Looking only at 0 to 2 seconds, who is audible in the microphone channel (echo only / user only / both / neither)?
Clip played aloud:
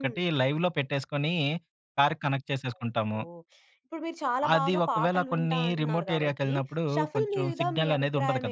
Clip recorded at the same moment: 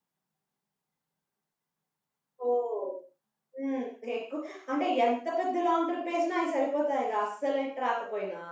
neither